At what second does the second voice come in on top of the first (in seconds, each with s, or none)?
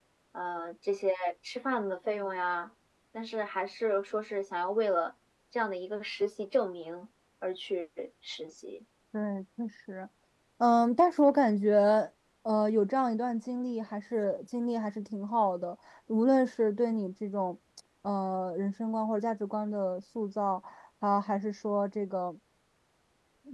none